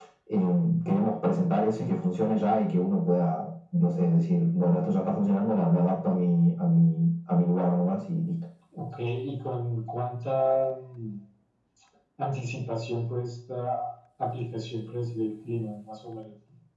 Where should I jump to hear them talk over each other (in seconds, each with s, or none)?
none